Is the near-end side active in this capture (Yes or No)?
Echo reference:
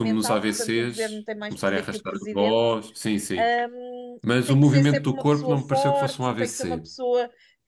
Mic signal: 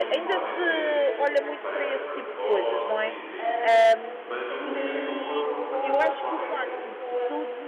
Yes